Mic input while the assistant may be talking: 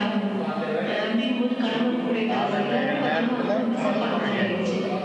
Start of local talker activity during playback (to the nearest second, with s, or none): 2 s